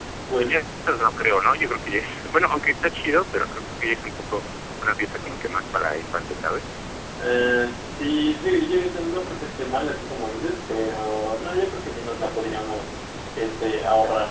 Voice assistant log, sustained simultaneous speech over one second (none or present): none